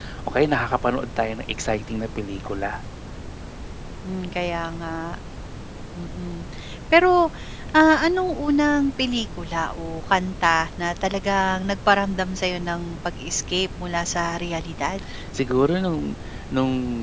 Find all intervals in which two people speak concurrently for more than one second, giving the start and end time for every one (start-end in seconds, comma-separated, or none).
none